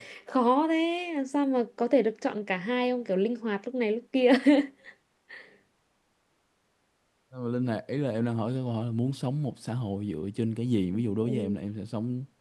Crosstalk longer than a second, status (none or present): none